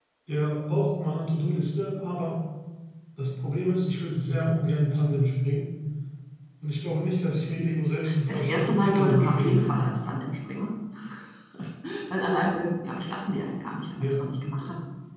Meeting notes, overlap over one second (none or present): present